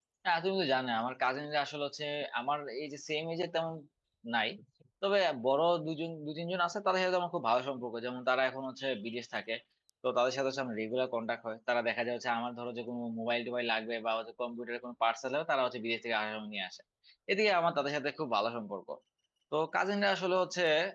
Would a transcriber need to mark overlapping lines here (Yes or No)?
No